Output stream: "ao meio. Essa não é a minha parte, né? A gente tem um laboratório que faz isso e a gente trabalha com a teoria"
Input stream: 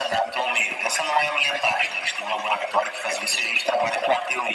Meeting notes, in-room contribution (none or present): none